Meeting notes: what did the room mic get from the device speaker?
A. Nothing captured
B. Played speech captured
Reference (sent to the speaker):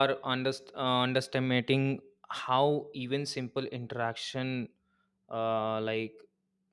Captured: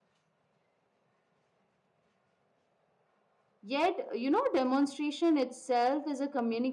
A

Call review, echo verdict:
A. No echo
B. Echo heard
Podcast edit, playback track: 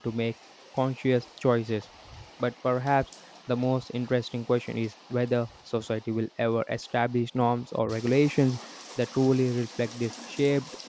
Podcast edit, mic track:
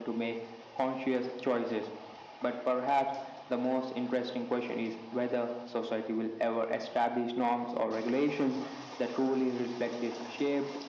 B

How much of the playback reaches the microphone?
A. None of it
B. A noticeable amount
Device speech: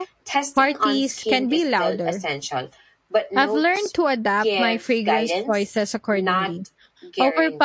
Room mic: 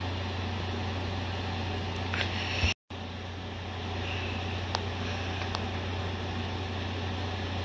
A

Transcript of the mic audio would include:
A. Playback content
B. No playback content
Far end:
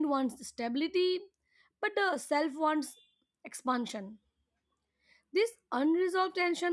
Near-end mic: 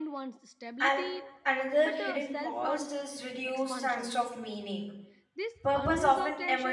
A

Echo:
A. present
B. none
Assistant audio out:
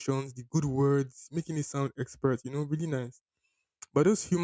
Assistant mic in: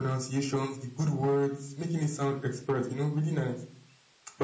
A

